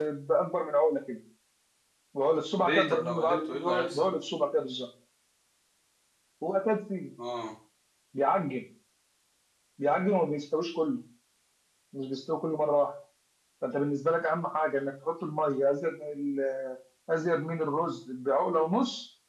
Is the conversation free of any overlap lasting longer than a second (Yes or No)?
No